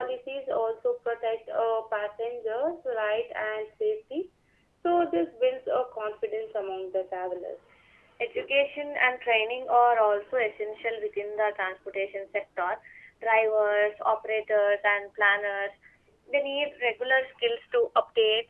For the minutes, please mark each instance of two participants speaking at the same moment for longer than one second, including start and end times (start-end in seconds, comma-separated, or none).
none